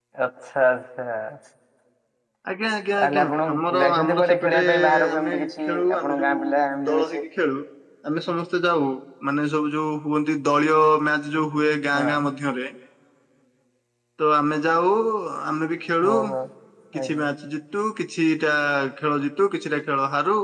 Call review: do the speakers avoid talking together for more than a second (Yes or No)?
No